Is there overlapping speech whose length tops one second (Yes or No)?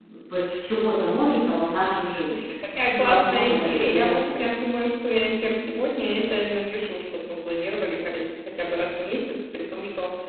Yes